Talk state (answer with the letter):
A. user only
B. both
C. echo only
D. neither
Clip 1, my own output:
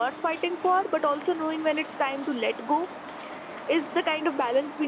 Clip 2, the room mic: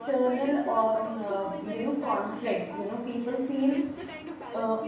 B